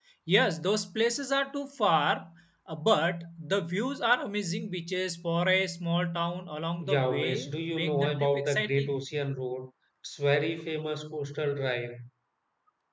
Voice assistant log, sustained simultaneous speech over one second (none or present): present